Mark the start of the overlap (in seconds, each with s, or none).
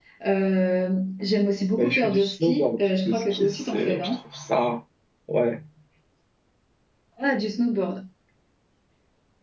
1.8 s